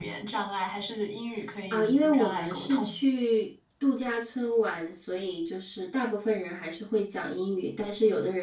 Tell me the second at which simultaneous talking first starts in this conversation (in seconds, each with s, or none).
1.7 s